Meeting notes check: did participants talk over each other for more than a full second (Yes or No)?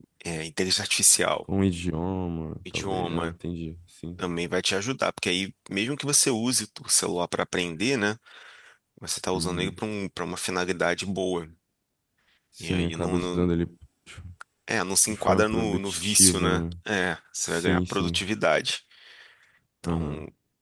Yes